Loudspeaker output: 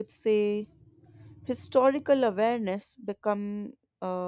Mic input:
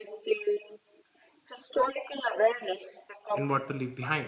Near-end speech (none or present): present